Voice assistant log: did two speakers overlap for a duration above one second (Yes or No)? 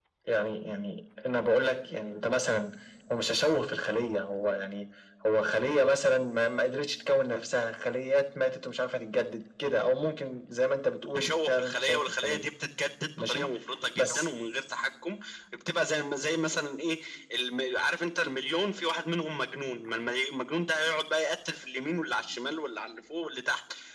Yes